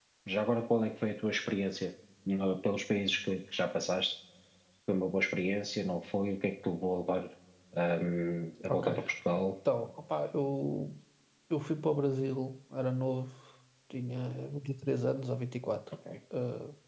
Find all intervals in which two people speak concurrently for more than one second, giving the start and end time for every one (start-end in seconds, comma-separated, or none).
none